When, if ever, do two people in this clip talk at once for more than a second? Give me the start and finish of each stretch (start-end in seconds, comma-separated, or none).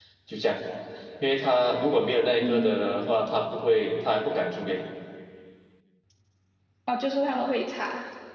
none